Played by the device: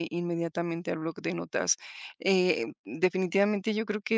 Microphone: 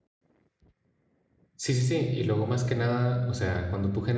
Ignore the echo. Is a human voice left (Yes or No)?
Yes